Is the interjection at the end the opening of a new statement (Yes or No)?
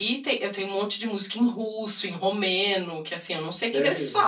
No